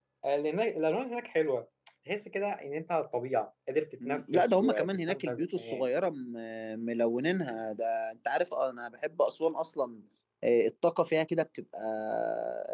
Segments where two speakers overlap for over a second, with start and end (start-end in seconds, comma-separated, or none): 4.0-5.9